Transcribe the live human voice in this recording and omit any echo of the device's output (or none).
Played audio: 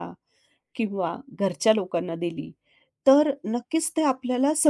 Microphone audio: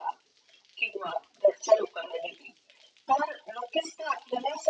none